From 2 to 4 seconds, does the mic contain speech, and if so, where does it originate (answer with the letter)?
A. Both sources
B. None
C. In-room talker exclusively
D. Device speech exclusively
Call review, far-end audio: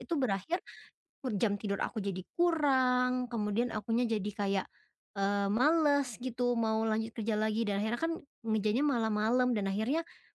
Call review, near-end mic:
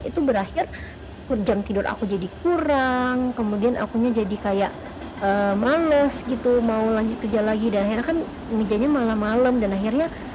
D